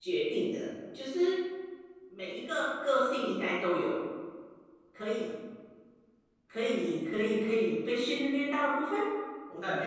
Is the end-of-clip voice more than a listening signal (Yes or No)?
Yes